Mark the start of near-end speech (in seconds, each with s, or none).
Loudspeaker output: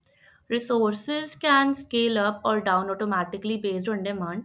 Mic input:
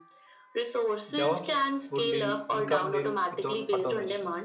1.1 s